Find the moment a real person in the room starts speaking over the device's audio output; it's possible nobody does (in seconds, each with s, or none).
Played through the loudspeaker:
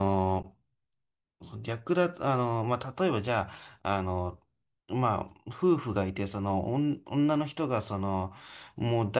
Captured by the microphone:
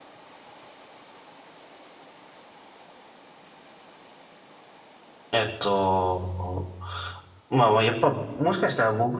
5.3 s